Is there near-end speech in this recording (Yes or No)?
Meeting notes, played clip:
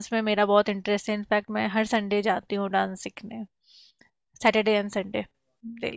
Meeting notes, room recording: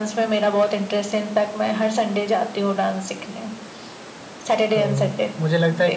Yes